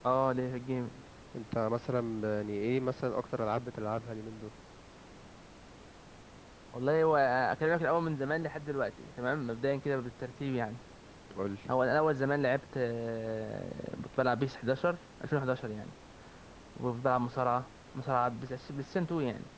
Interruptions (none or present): none